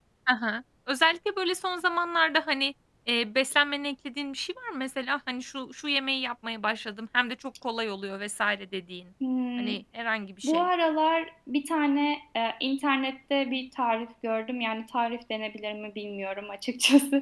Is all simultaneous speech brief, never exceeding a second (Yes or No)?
Yes